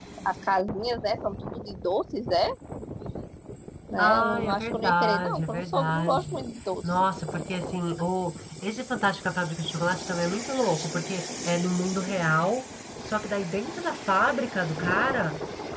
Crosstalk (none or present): present